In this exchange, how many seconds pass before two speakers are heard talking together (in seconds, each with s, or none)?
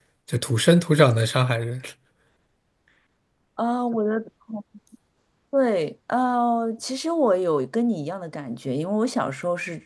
none